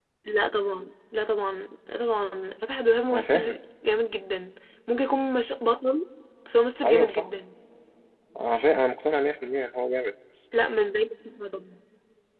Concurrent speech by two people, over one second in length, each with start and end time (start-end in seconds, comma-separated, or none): none